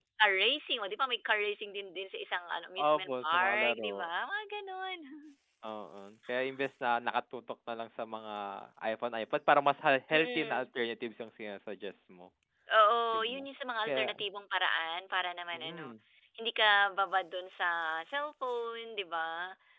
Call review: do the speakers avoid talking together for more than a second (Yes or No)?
No